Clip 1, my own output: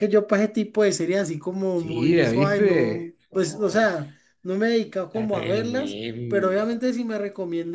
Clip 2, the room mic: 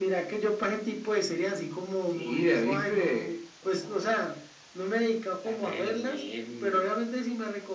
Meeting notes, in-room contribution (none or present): none